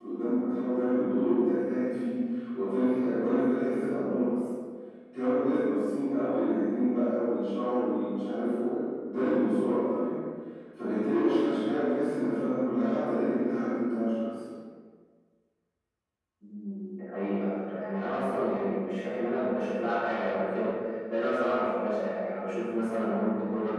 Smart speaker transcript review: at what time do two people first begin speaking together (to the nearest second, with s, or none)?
none